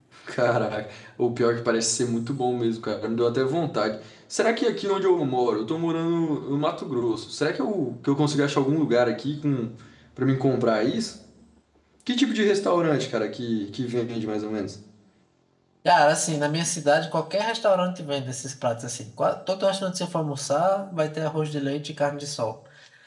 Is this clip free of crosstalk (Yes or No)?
Yes